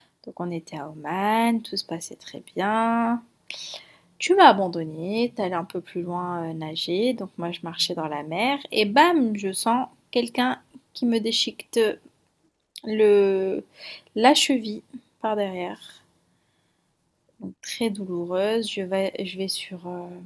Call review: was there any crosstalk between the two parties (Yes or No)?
No